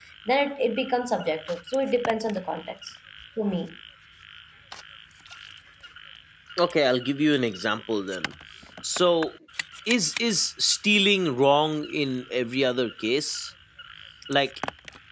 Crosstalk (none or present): none